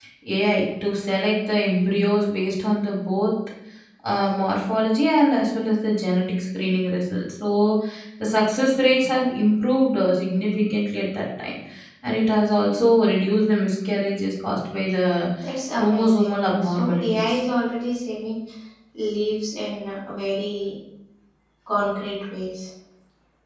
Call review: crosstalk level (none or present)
present